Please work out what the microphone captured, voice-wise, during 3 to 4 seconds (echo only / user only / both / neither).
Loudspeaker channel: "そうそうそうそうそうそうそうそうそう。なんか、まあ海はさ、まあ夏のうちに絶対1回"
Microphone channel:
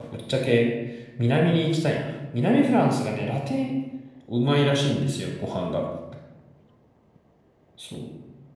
user only